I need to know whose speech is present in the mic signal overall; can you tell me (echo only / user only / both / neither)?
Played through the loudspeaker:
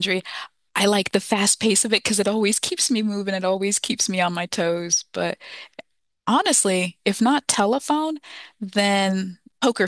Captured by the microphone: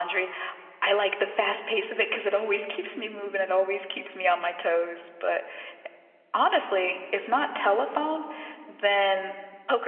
echo only